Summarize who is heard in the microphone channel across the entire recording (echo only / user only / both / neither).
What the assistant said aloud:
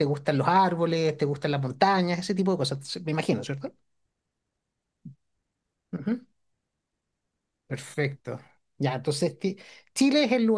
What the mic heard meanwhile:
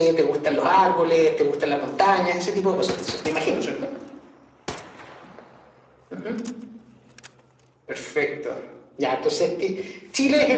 echo only